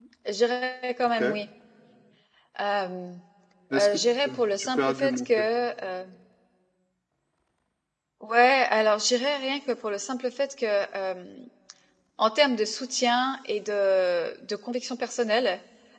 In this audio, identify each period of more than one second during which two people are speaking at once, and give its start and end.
3.8-5.4

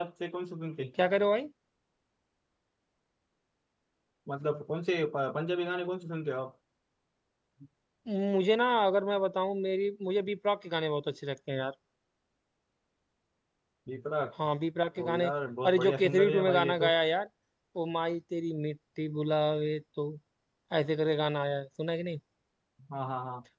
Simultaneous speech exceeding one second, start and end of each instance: 15.7-16.9

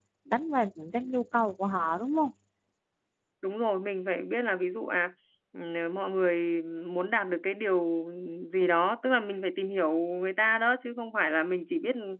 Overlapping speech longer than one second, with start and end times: none

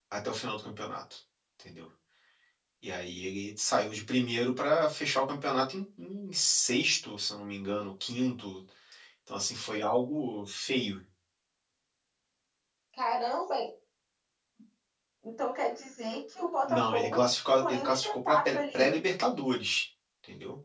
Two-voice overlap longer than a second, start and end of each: 16.7-18.9

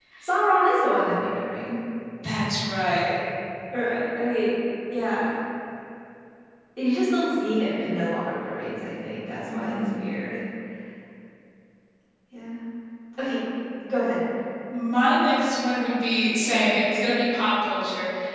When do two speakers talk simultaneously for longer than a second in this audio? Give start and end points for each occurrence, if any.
none

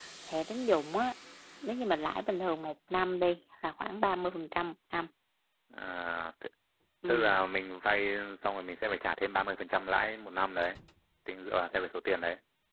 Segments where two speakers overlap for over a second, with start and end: none

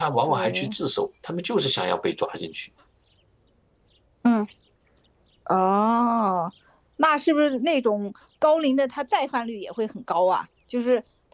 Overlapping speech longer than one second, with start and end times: none

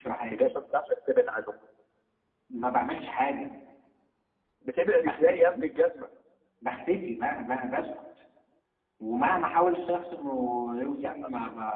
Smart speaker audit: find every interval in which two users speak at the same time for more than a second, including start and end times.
none

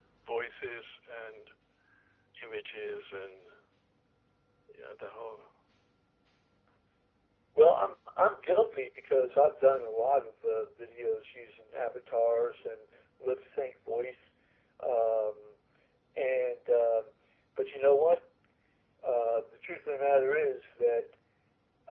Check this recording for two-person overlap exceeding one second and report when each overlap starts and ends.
none

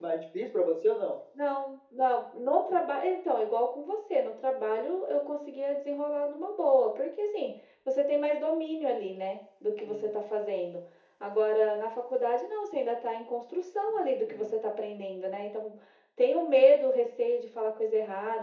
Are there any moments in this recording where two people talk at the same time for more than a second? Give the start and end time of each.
none

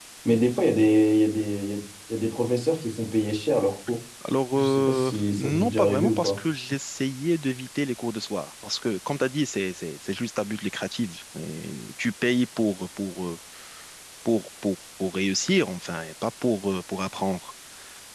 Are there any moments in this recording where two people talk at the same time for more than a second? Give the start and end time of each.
4.5-6.3

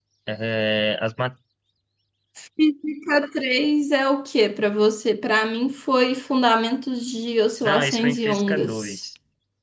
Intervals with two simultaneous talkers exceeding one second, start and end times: 7.6-9.0

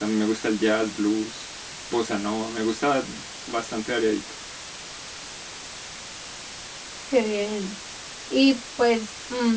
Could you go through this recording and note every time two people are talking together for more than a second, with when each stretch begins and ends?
none

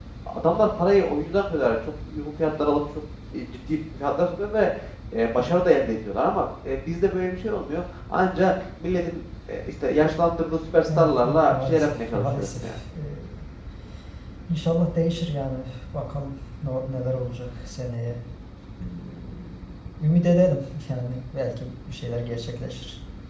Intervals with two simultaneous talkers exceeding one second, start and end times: 11.0-12.7

